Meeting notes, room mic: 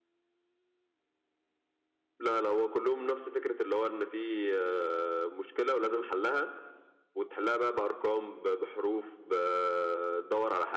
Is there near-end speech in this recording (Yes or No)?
No